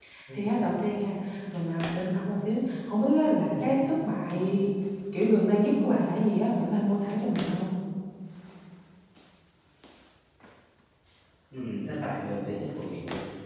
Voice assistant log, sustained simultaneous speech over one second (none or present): none